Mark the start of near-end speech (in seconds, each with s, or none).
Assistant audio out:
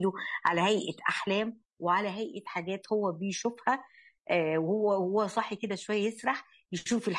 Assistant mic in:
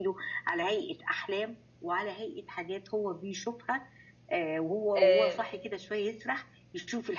5.0 s